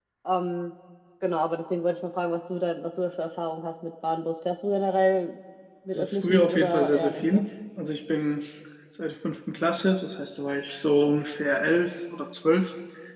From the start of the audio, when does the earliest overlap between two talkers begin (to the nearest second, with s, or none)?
6 s